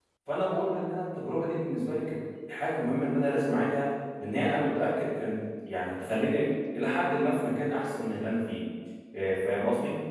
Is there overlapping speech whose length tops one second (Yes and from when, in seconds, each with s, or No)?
No